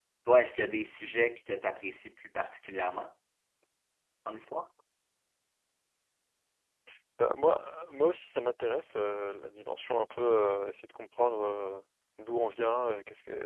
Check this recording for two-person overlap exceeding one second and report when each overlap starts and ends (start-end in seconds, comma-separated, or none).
none